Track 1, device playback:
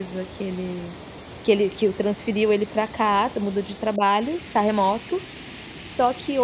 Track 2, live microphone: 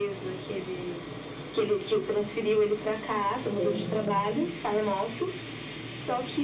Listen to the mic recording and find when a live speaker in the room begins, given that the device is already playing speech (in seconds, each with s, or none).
3.3 s